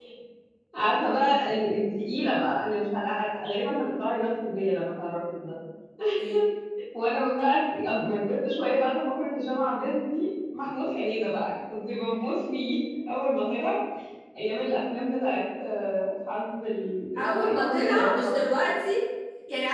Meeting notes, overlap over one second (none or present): present